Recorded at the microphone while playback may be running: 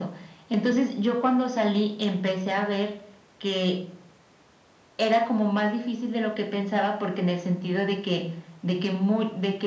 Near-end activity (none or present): none